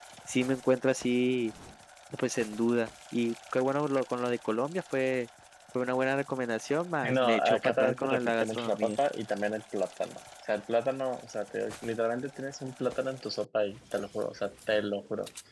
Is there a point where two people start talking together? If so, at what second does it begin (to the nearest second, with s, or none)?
7 s